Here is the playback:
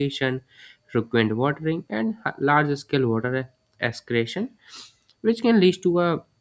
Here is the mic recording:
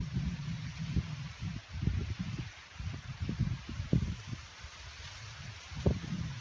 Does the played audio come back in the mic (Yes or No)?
No